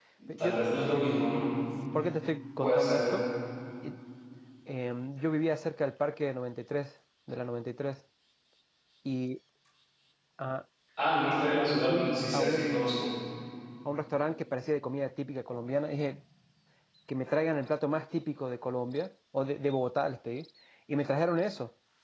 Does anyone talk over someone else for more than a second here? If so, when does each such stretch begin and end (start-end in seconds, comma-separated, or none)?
11.7-12.9